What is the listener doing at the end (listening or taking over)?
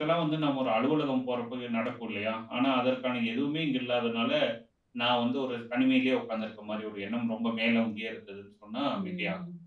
taking over